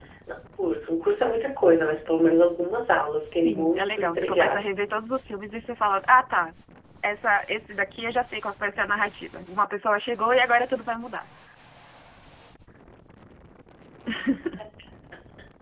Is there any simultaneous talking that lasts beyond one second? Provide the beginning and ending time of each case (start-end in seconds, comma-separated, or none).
3.4-4.7